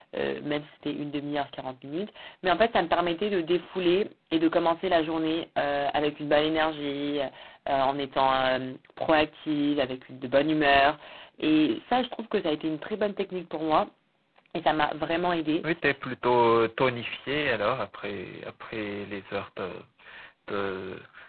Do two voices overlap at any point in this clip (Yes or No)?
No